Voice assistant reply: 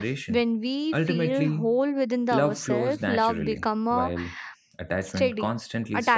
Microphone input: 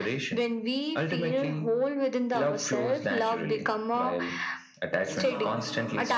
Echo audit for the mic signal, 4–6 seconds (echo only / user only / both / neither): both